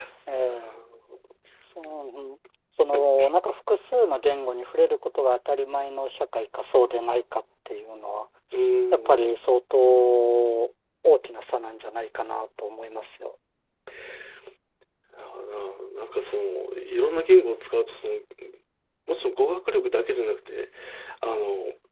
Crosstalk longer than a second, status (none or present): none